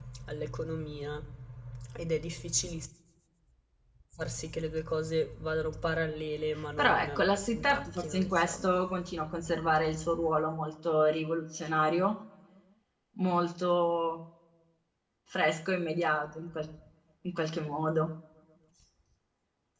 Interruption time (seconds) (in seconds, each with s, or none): 6.8 s